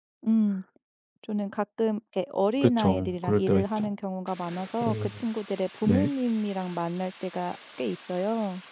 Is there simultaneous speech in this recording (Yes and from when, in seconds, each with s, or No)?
Yes, from 2.6 s